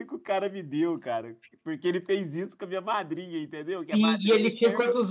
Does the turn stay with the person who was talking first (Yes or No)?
No